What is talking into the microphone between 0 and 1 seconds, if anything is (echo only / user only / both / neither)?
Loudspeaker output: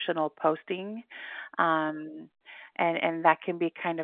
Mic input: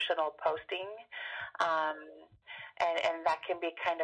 echo only